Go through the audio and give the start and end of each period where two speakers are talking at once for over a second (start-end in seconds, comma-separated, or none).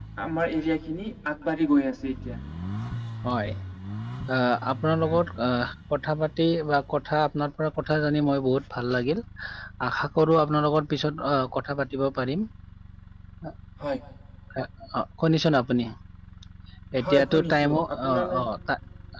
17.0-18.4